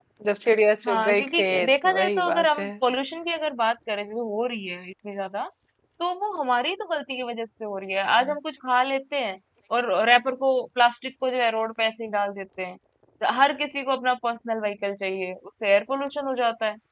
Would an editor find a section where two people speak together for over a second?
Yes, from 0.9 s

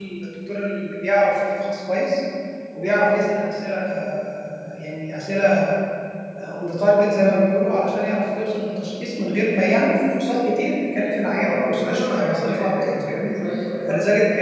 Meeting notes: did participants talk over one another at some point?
Yes, from 11.4 s

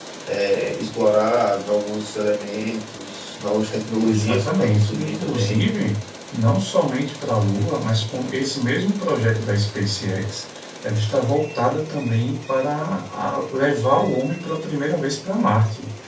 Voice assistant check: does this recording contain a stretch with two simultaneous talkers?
Yes, from 4.0 s

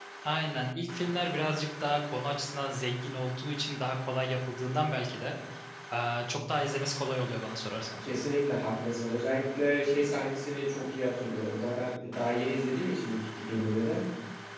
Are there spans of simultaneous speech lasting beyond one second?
No

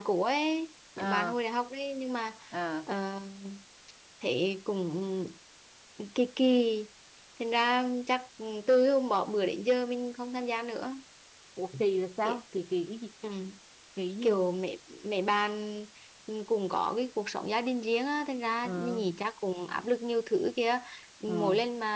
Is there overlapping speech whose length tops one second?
No

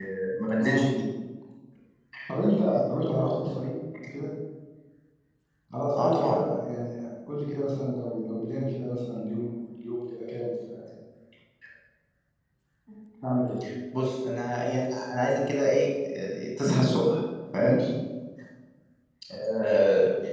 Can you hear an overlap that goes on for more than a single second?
No

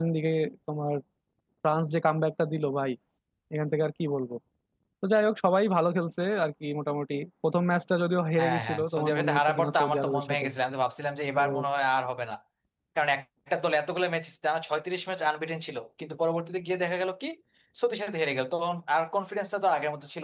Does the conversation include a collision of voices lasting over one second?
Yes, from 8.4 s

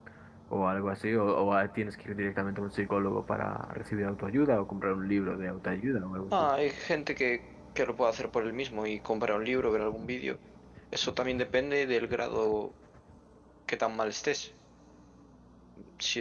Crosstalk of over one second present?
No

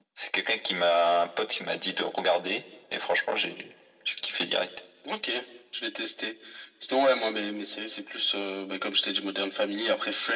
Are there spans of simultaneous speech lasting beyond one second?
No

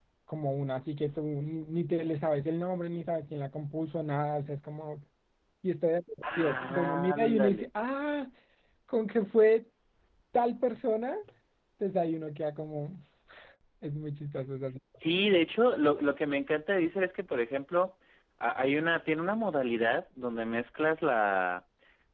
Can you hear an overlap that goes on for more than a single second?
Yes, from 6.2 s

